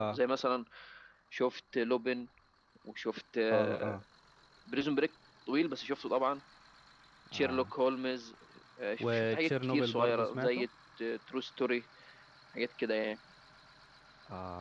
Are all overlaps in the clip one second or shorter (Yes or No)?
No